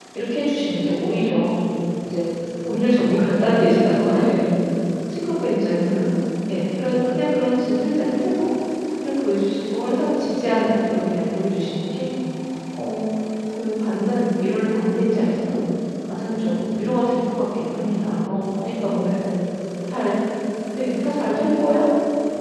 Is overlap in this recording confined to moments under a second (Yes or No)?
Yes